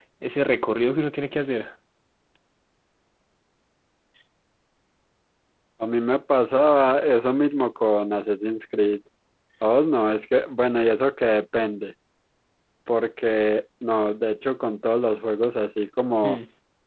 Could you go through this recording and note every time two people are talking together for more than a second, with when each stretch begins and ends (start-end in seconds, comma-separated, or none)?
none